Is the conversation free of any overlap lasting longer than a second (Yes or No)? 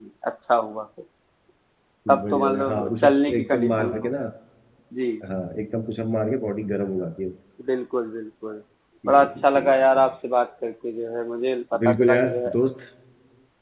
No